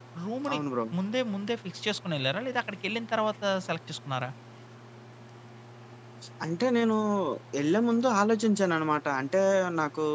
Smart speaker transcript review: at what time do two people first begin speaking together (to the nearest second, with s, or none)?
none